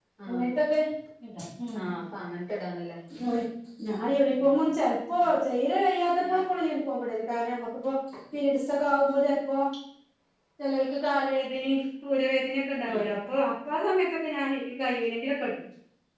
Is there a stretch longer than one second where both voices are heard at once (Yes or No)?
No